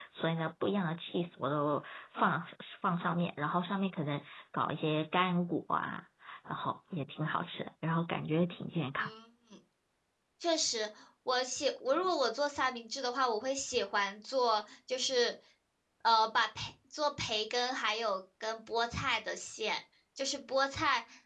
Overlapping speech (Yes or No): No